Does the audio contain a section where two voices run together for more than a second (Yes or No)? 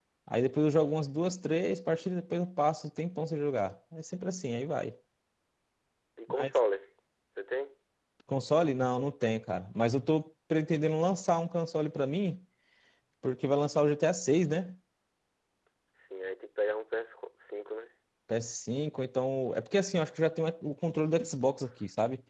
No